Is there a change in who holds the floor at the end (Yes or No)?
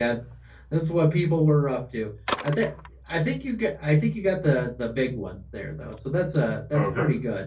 Yes